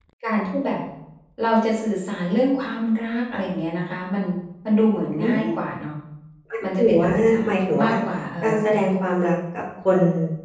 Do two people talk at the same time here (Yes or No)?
Yes